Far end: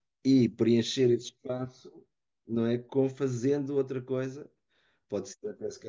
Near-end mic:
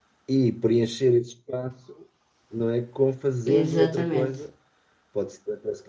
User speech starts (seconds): 3.4 s

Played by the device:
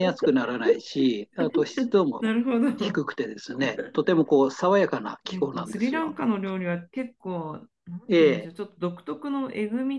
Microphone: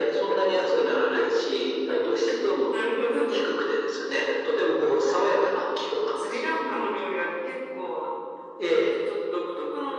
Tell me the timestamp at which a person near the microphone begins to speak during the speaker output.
none

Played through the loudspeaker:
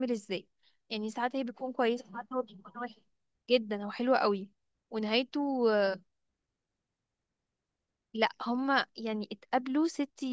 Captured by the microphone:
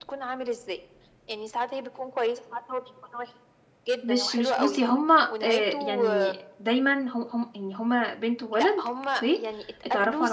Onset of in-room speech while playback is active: 4.0 s

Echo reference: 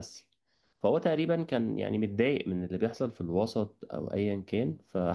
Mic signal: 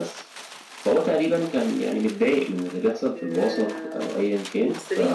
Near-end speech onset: 3.2 s

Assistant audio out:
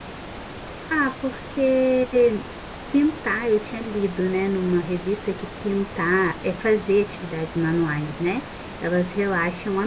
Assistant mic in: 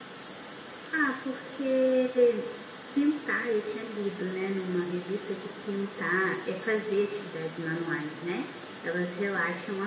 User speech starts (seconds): none

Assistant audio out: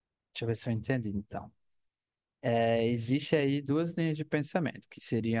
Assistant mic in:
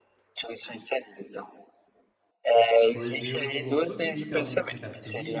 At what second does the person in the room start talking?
2.9 s

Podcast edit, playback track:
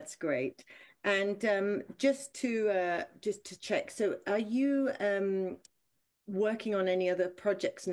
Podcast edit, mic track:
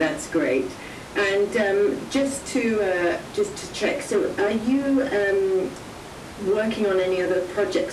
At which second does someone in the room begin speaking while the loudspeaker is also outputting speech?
none

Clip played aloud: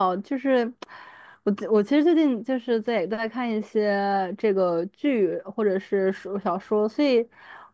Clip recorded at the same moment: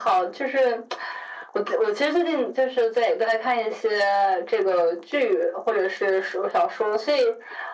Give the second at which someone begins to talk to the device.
none

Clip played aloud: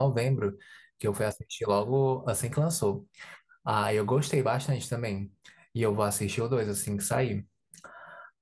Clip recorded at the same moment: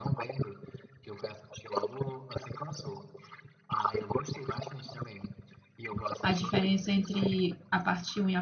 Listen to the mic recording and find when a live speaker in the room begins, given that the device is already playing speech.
6.2 s

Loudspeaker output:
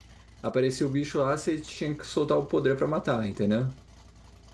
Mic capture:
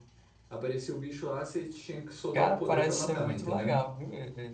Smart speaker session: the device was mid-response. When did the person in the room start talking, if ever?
2.3 s

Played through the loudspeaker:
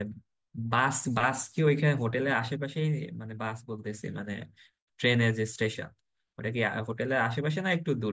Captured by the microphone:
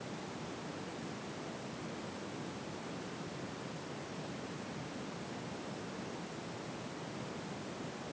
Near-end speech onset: none

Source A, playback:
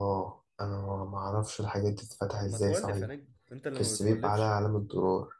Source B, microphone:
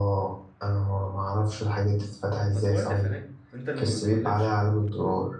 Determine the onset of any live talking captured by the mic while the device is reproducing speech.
none

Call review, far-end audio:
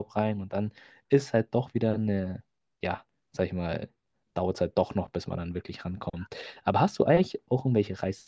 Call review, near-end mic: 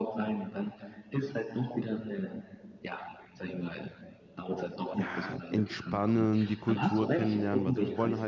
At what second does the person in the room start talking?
4.9 s

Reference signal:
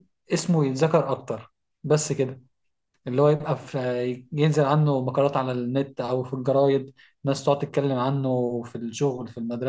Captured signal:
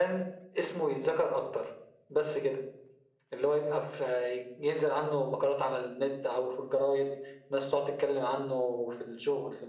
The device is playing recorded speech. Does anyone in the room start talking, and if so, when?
none

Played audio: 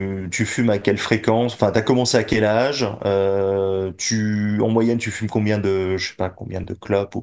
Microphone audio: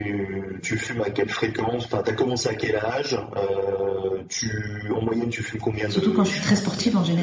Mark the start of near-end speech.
5.9 s

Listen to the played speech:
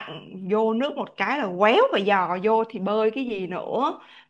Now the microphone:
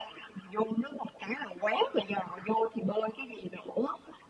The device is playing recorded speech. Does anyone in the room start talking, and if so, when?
none

